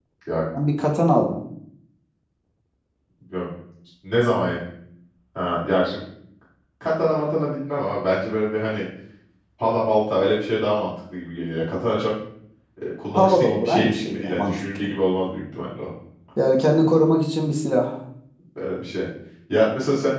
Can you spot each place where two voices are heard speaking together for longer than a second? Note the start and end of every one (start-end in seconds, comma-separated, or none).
13.1-14.8